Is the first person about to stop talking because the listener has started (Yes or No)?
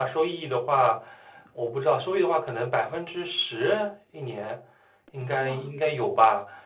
No